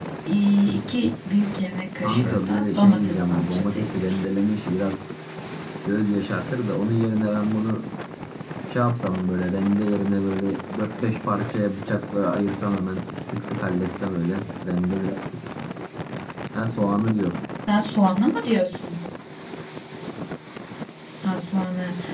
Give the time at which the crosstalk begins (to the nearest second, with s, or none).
2 s